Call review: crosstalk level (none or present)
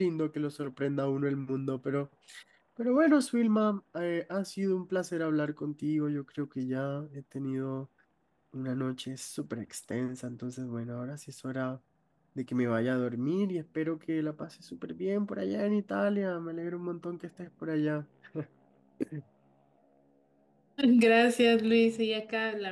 none